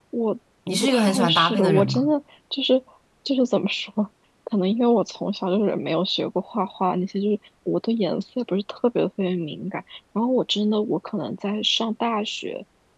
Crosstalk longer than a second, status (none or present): present